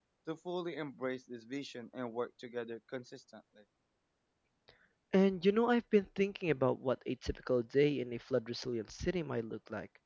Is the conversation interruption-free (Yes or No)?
Yes